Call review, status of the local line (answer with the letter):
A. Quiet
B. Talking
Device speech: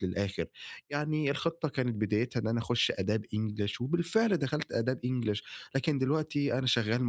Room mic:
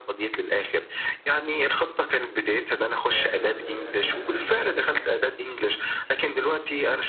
B